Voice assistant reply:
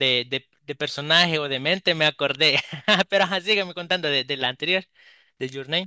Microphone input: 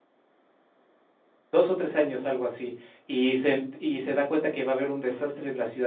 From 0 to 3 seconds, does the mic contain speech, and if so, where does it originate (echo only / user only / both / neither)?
user only